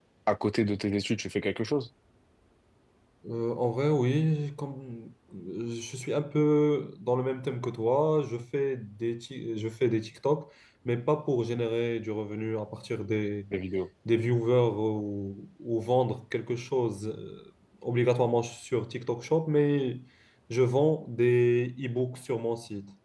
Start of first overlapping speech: none

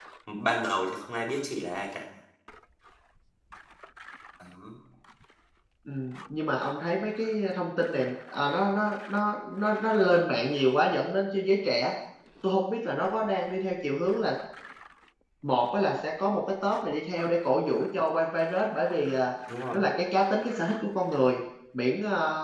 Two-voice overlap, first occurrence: none

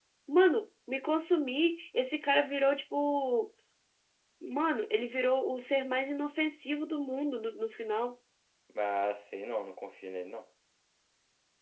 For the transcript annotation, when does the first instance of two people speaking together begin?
none

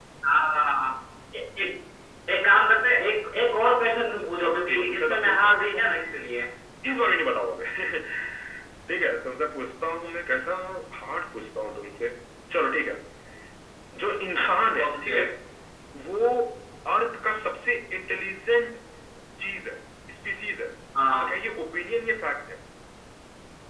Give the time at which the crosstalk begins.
4.0 s

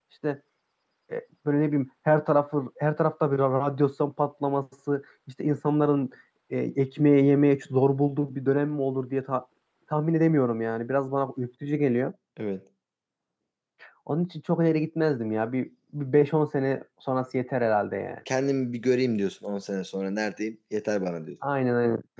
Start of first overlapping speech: none

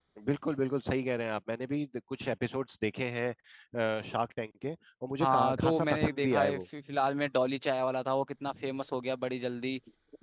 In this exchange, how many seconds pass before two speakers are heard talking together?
5.2 s

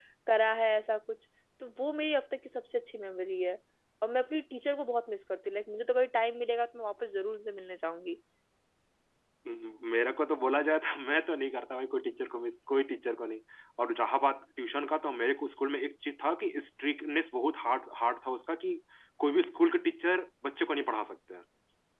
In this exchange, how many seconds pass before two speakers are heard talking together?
none

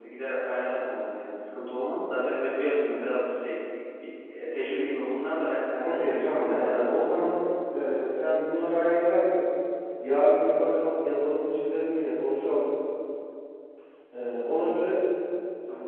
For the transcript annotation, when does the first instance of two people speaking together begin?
5.8 s

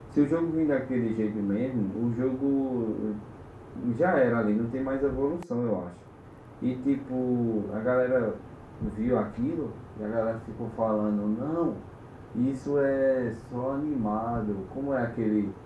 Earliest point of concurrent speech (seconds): none

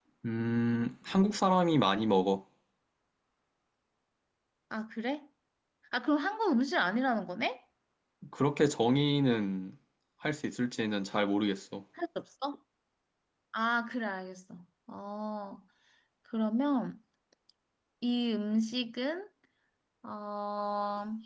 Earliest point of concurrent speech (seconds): none

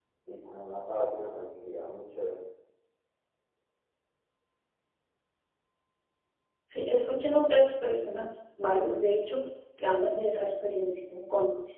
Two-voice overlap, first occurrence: none

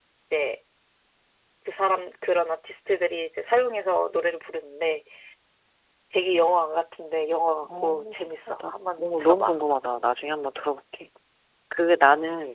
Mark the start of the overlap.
7.6 s

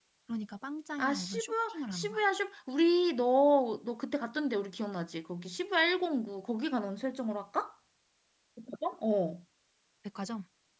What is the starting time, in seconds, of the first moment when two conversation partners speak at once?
1.0 s

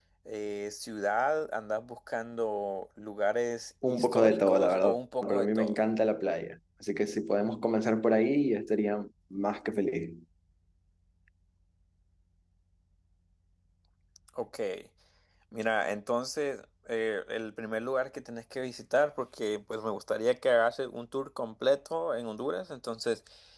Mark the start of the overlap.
3.8 s

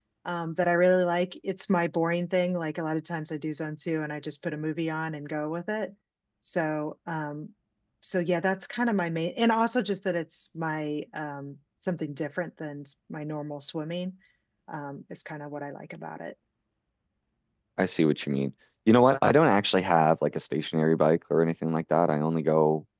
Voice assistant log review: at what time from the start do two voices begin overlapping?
none

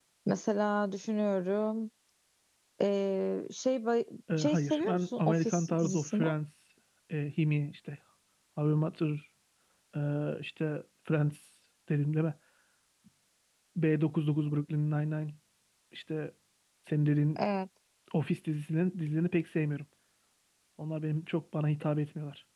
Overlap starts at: 4.3 s

